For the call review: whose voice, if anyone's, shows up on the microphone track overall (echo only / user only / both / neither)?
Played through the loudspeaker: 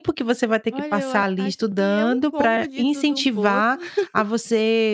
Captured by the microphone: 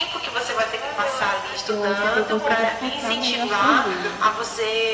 both